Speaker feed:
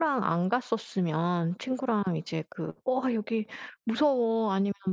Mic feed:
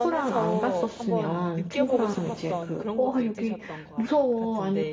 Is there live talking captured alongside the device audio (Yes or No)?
Yes